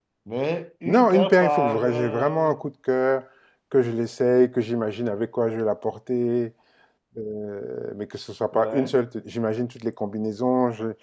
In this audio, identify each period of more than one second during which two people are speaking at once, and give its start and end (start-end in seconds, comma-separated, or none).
0.9-2.5